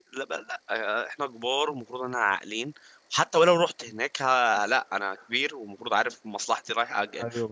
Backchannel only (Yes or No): No